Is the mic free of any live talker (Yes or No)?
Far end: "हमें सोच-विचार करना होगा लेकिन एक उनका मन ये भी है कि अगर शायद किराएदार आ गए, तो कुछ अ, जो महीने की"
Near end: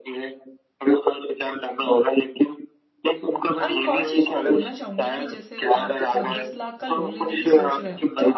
No